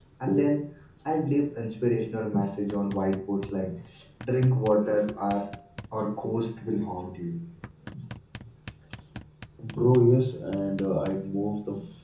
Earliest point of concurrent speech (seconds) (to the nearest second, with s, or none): none